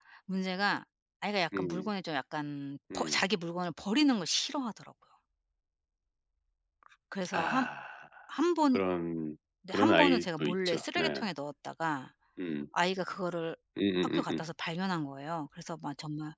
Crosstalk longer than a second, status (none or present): present